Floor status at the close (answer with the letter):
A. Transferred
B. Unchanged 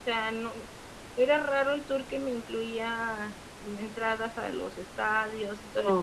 B